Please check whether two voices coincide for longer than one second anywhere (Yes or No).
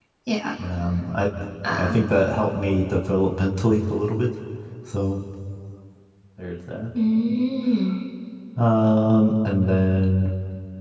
No